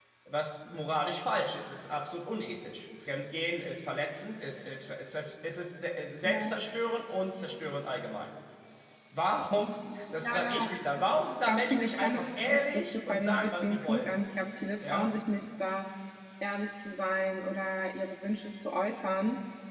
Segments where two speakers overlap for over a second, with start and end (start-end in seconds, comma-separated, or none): 11.5-14.2